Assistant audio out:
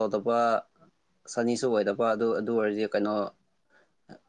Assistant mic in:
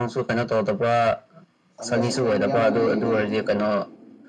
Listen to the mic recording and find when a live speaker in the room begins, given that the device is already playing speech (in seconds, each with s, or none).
1.8 s